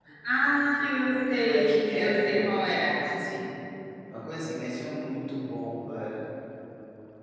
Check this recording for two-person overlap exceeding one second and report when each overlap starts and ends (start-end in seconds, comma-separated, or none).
1.3-2.9